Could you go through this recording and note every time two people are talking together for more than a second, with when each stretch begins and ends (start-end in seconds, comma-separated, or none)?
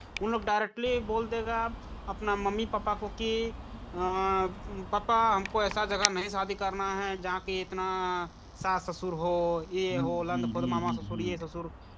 9.9-11.4